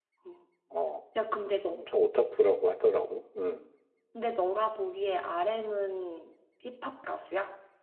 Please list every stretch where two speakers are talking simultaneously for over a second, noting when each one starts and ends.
none

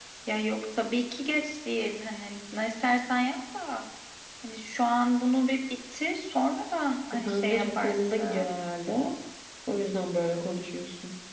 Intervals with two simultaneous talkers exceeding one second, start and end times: 7.1-8.5

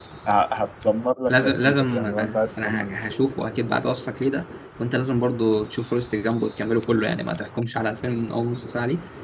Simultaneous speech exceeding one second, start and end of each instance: 1.3-3.0

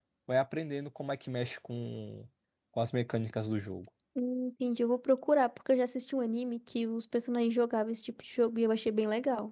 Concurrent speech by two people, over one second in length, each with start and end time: none

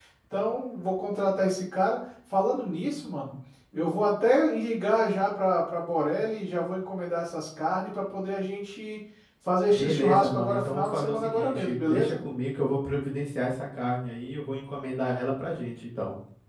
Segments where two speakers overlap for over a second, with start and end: 9.7-12.2

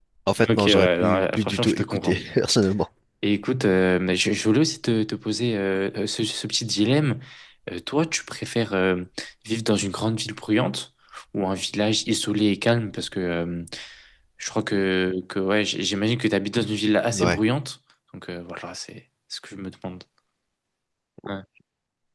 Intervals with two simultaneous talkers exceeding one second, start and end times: 0.6-2.2

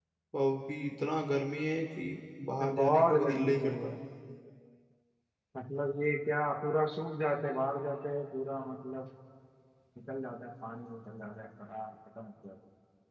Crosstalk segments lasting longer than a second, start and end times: 2.6-3.9

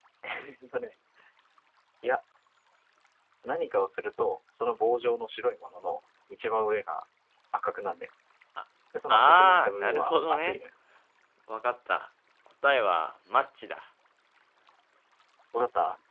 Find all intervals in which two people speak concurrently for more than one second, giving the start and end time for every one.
9.1-10.6

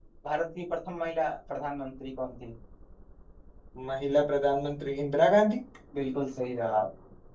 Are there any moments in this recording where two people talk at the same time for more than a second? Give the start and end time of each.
none

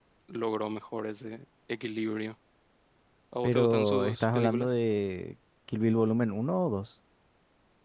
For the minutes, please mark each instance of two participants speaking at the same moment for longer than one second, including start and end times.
3.4-4.7

